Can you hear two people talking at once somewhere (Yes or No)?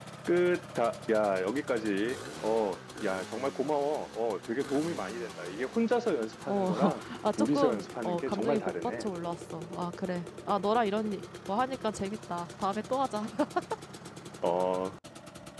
Yes